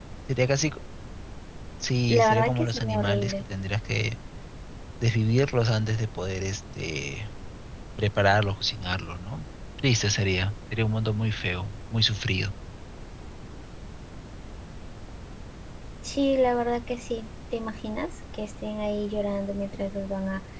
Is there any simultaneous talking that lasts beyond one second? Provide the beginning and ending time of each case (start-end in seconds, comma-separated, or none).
2.1-3.3